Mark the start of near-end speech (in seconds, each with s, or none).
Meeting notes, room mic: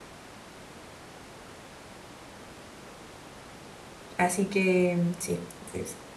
4.2 s